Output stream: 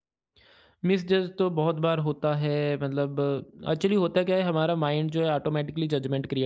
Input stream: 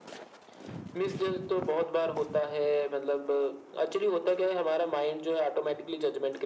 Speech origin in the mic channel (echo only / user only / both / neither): echo only